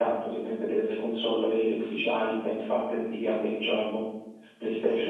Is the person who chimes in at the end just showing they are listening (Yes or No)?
No